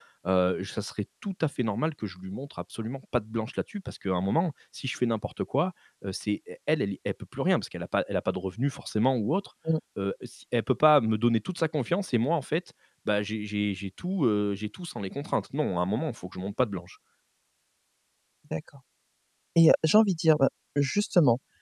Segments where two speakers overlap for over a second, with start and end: none

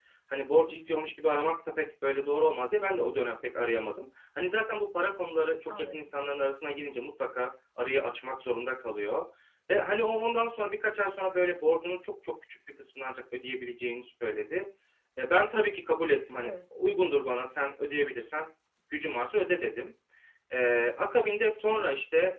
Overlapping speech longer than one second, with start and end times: none

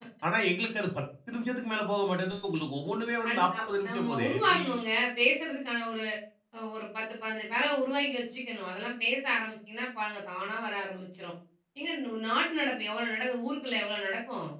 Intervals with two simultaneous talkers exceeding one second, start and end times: 3.2-4.6

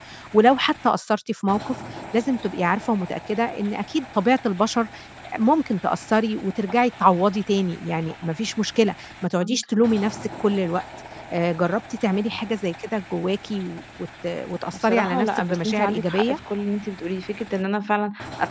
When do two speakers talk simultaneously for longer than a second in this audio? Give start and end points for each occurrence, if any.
14.8-16.4

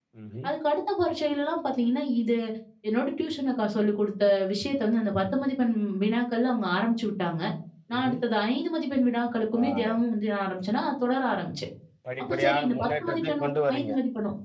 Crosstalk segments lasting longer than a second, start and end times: 12.2-13.9

